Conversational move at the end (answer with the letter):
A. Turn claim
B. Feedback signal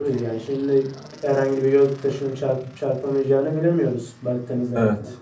A